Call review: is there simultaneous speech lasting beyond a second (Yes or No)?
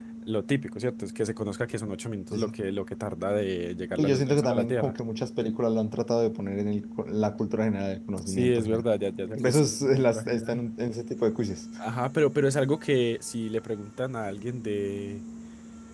Yes